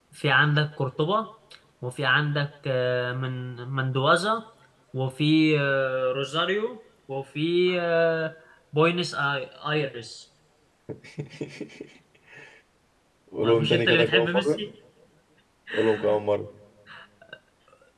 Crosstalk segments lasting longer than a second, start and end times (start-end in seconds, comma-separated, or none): 13.4-14.6